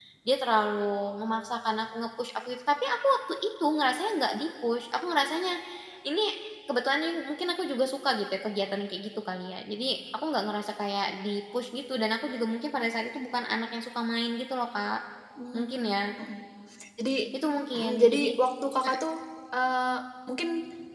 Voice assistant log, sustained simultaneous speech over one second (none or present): none